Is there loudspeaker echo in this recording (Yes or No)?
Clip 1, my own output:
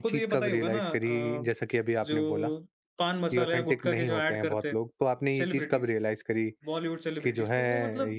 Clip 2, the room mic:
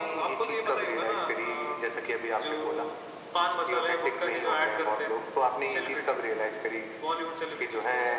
Yes